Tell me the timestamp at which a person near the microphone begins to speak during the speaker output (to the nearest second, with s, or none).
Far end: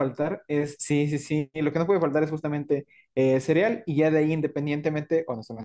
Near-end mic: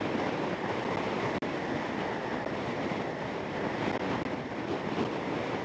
none